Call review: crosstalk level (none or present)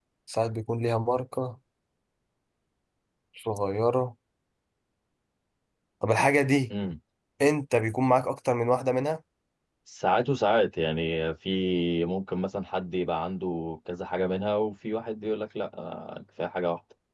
none